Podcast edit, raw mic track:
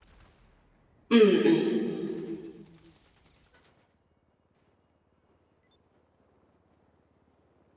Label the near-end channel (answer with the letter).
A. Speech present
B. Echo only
A